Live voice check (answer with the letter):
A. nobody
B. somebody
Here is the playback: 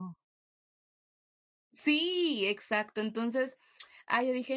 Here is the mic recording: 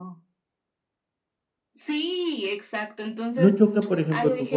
B